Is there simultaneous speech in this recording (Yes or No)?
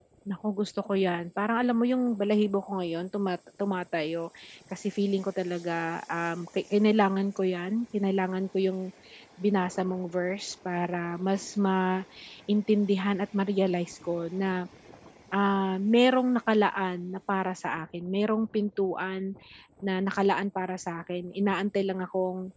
No